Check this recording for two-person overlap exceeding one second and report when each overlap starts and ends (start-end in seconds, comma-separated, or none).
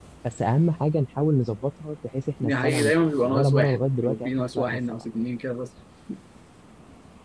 2.4-5.0